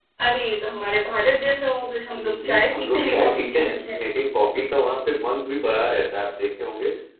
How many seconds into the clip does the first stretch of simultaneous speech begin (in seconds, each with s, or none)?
2.2 s